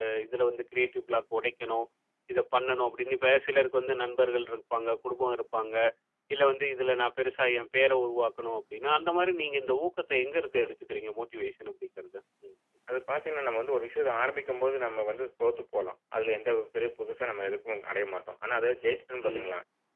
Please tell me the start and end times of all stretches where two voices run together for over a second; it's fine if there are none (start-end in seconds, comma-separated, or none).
none